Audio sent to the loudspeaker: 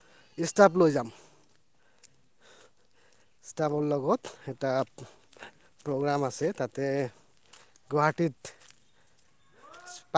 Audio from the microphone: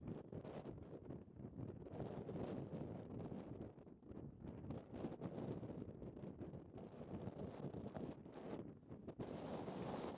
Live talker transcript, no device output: none

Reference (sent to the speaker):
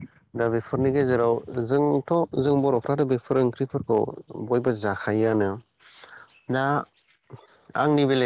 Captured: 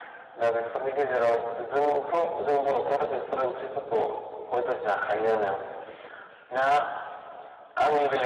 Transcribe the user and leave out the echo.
none

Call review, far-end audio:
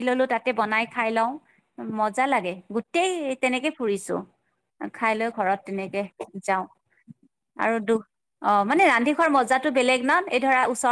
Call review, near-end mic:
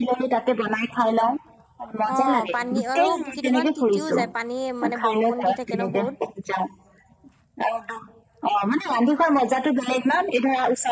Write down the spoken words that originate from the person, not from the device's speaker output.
অ, পানী আৰু কিদুমান তিতিও যায় পানী মানে বৰষুণ দি থাকে ন বহুত

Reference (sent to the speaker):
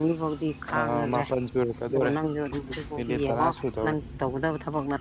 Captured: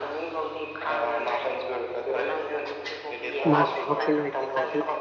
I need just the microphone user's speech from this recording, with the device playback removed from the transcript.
ꯃꯥꯒꯤ ꯊꯕꯛꯁꯤ ꯂꯣꯏꯗ꯭ꯔꯤ ꯐꯥꯎꯗꯤ

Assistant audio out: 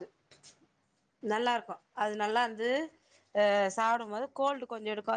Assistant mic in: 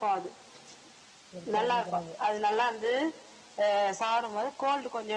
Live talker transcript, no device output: இருக்கறேனிக்கிறாங்க.

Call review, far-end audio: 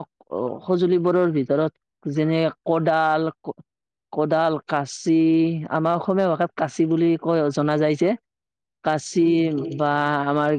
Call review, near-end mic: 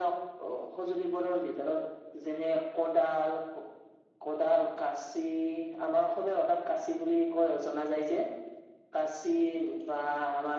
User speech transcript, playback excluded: none

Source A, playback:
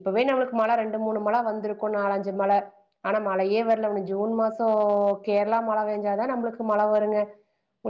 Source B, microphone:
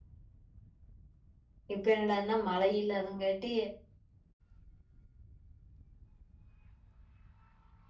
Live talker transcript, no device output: இப்ப என்னடான்னா மழ இல்லாதங் காட்டி

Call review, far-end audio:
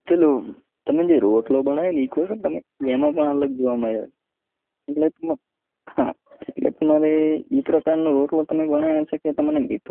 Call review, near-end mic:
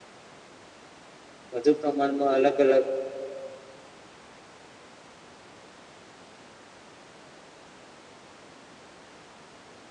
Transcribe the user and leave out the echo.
વધુ પ્રમાણમાં અલગ અલગ

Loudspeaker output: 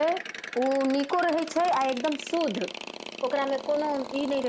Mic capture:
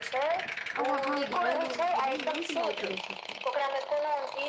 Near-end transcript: आब वहा घैल‌उल खनि यूज नय करै छथिन

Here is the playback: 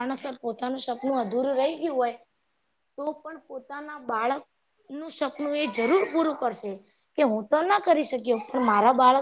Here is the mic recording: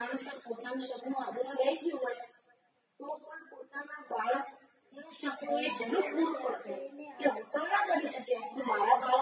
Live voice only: અ ખુશીઓ નો ત્યાગ કરી-

